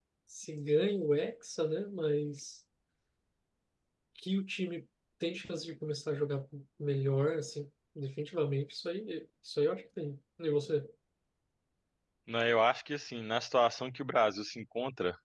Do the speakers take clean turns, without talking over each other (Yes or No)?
Yes